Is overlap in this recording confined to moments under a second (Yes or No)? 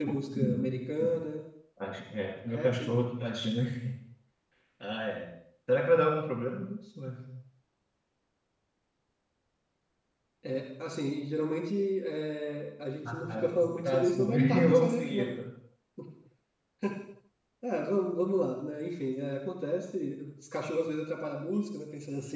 No